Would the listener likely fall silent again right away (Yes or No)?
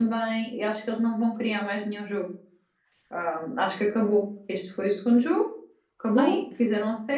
Yes